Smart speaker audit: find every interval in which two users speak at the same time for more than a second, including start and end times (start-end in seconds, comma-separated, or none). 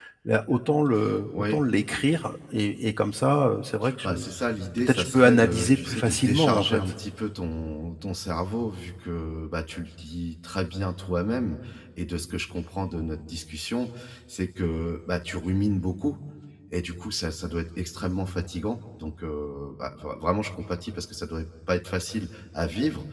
4.8-6.8